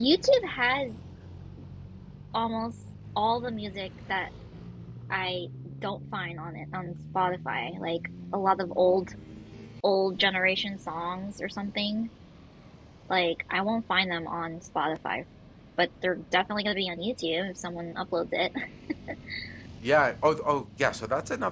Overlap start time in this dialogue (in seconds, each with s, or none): none